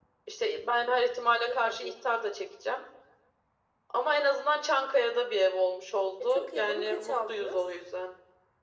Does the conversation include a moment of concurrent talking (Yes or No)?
Yes